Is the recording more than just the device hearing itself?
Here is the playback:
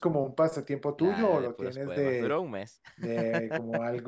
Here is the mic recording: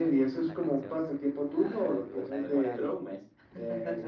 Yes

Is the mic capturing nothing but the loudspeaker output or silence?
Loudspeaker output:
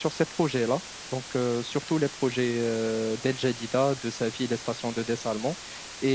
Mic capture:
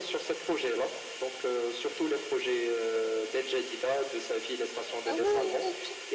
No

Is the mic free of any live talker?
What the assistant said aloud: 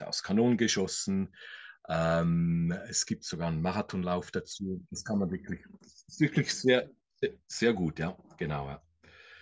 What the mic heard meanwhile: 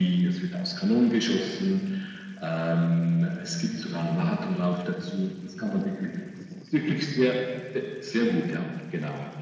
Yes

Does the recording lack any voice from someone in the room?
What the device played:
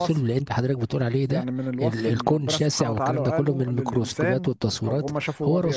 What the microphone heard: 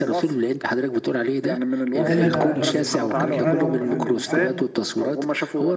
No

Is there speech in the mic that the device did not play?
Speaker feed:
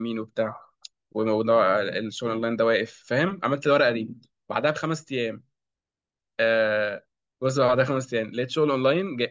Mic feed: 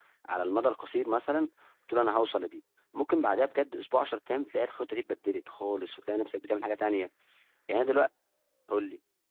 Yes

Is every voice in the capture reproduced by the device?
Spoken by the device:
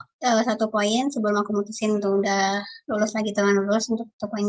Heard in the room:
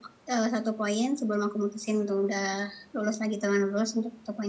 Yes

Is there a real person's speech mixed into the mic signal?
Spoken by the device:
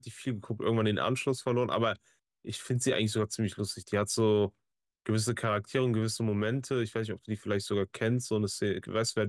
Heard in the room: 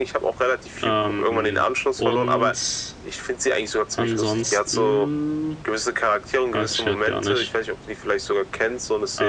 Yes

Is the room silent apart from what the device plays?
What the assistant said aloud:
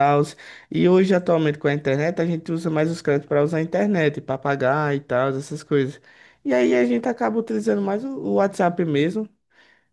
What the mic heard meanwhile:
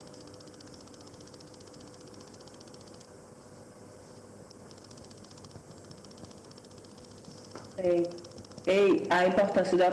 No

